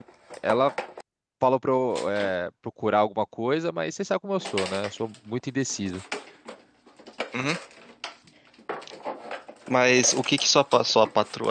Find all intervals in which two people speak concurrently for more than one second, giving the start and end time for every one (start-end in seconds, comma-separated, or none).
none